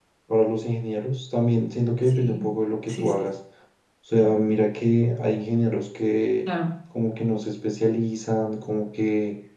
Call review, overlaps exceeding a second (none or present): none